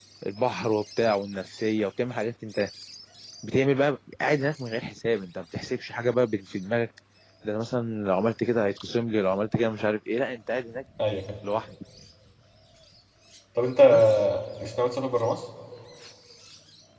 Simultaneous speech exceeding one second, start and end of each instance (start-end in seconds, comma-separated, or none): none